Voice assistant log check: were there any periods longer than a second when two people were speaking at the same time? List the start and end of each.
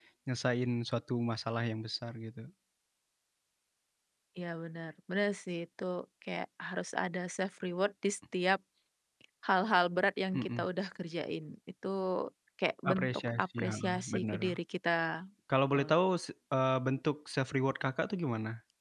12.9-14.4

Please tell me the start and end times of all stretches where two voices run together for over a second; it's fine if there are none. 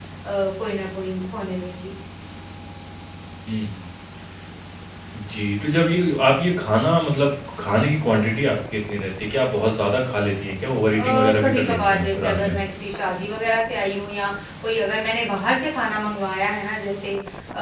10.9-12.6

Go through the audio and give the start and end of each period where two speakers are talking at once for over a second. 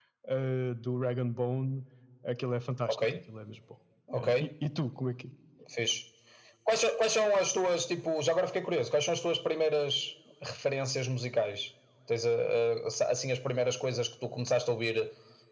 none

